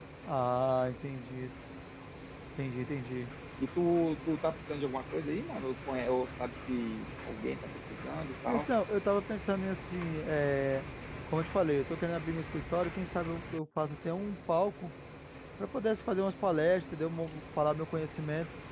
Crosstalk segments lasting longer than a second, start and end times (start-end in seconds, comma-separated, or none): none